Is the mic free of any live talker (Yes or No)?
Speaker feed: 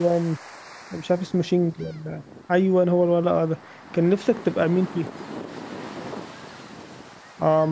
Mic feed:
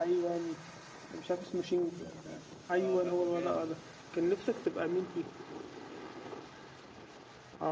No